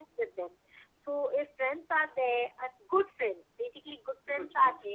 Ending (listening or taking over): listening